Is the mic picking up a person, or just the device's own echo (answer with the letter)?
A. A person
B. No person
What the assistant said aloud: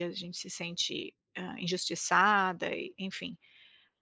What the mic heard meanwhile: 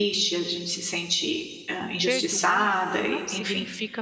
A